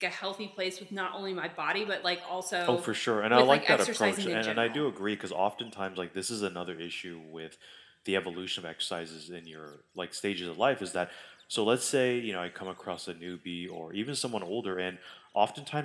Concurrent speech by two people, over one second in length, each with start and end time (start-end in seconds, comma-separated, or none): 3.3-4.8